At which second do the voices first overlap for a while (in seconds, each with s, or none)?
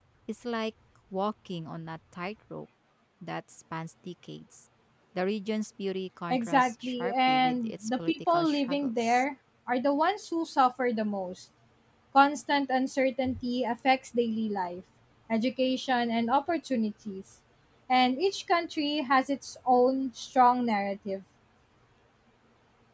6.3 s